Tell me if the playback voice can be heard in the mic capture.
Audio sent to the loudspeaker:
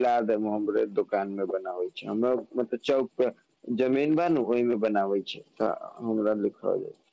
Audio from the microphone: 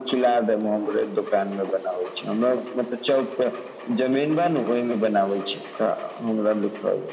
Yes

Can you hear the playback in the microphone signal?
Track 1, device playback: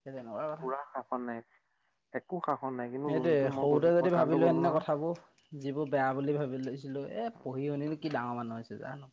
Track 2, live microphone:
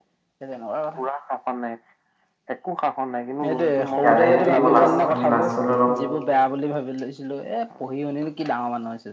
Yes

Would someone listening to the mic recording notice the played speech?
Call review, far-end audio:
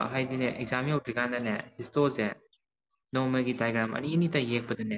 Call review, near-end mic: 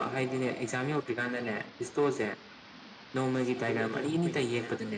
Yes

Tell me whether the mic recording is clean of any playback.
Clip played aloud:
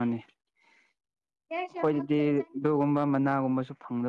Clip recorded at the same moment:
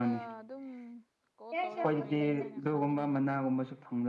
No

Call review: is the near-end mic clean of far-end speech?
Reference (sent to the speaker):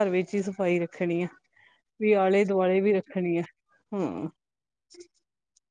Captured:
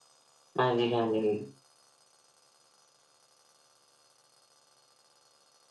Yes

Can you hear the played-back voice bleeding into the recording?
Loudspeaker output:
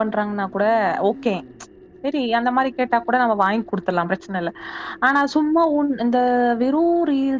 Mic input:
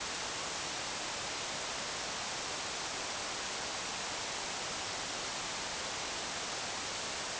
No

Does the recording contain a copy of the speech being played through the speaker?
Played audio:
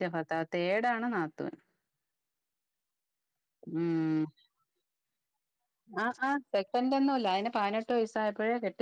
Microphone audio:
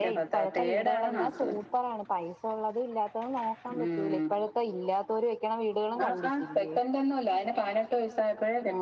Yes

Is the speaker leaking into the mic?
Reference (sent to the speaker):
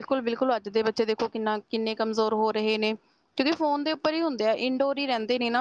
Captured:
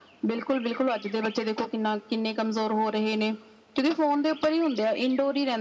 Yes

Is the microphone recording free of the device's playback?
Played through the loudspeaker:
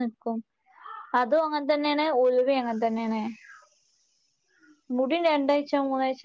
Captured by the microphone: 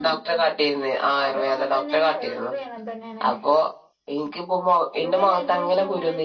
No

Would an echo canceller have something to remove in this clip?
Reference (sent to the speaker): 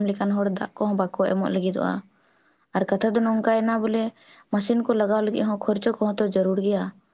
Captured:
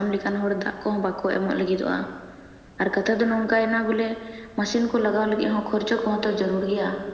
Yes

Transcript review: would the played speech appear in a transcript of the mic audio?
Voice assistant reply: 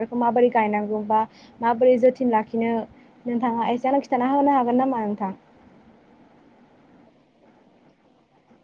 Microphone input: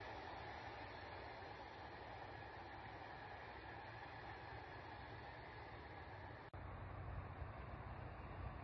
No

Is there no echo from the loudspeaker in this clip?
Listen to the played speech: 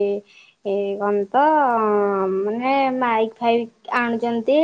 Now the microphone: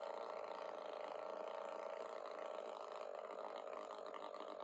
Yes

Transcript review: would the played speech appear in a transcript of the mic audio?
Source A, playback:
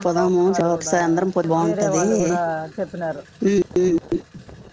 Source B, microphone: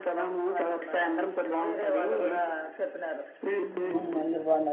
Yes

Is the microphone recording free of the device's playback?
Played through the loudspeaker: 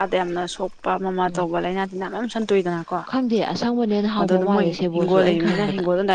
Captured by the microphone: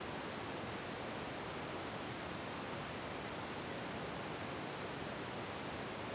Yes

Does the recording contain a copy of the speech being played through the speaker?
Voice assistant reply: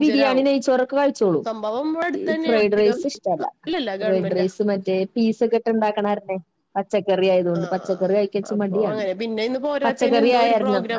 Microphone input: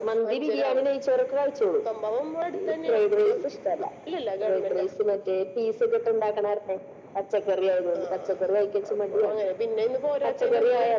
Yes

